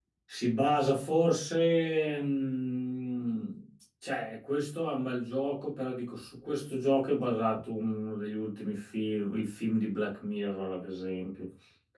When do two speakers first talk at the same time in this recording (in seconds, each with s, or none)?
none